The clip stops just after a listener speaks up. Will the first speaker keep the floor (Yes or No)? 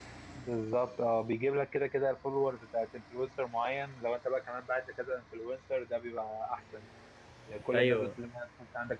Yes